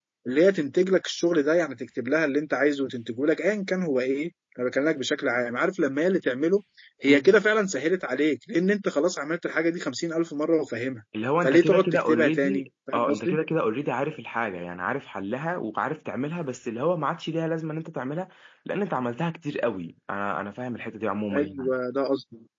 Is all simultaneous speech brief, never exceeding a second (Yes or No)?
No